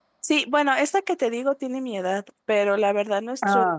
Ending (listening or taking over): listening